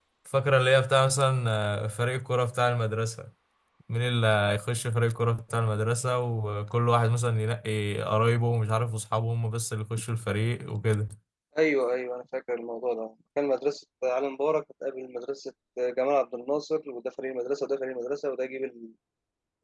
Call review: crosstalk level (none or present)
none